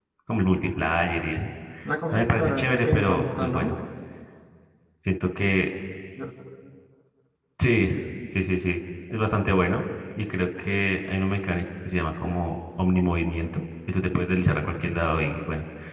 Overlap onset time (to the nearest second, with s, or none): 2 s